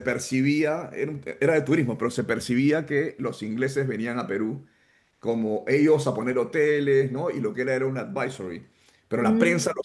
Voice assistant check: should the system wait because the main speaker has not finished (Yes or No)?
Yes